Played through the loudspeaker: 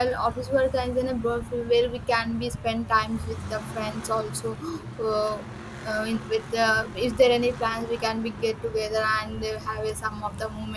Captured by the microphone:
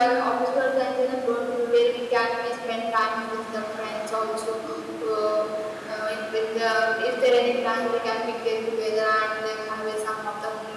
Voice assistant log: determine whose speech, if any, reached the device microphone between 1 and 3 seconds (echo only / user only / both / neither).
echo only